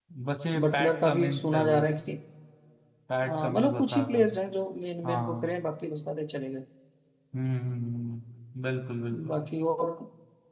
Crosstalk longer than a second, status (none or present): present